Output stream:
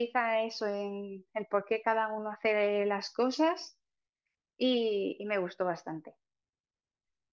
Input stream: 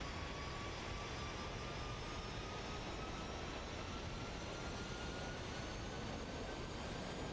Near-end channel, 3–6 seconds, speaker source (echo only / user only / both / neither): neither